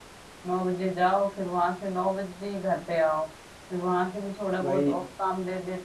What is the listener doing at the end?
listening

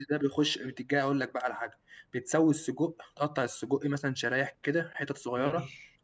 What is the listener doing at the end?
listening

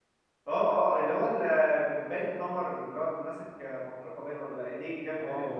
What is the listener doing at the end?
taking over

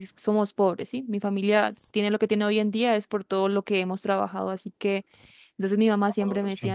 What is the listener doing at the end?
listening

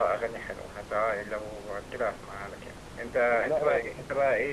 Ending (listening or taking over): listening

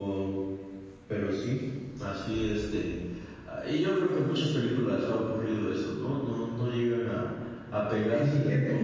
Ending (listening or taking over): taking over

